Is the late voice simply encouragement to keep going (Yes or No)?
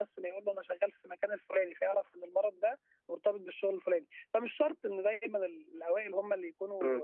No